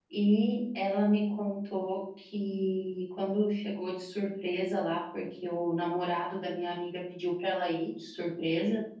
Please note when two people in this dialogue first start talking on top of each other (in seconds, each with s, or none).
none